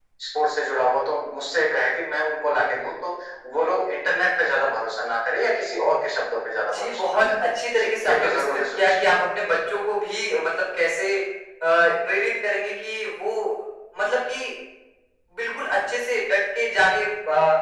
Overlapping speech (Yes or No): Yes